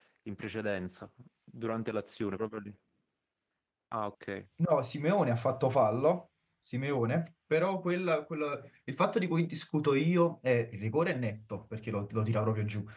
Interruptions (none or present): none